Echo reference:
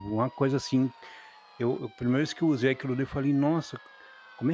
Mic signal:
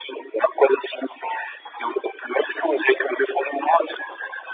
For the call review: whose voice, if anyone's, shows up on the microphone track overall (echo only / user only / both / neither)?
echo only